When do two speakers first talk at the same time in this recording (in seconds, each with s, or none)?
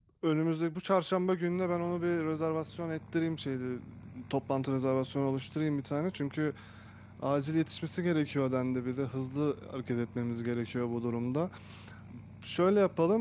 none